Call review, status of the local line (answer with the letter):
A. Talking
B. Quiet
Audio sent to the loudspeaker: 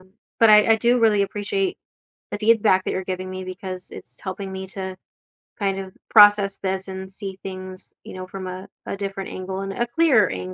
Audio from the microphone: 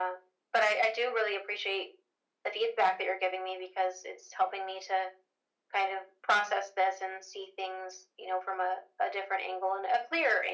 B